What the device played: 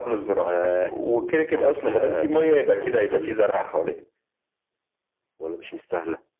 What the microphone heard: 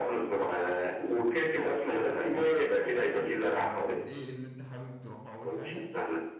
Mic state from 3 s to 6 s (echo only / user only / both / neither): both